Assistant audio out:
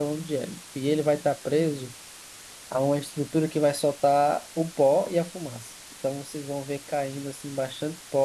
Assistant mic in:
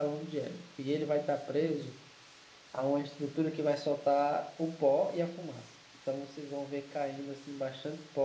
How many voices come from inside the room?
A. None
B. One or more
A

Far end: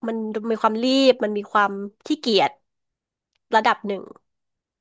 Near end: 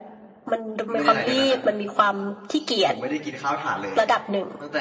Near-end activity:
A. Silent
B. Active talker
B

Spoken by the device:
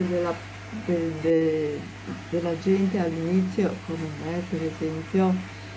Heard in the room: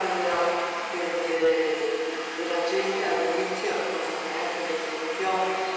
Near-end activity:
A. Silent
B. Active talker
A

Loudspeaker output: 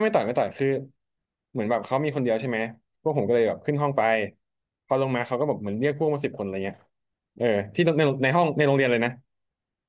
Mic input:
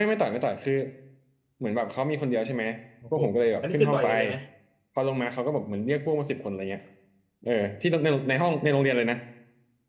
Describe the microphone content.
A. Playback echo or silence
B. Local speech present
B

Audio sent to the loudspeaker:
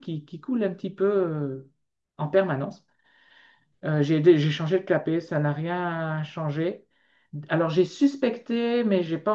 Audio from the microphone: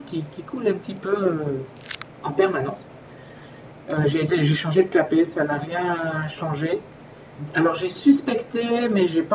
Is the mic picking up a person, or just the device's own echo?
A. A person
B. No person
B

